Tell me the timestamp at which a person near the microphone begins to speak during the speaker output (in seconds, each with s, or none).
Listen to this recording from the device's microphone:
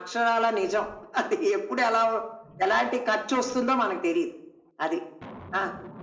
none